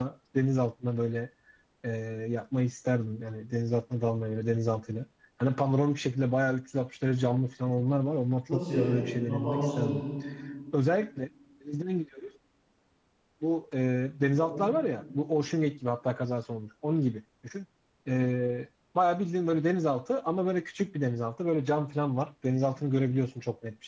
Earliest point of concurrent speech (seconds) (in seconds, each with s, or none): 8.5 s